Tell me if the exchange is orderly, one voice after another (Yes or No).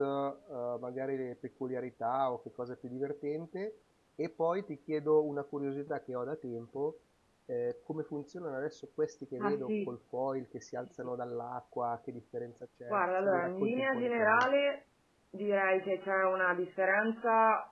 No